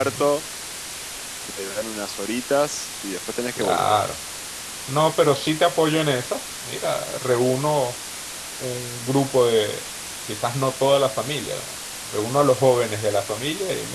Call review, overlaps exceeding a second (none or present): none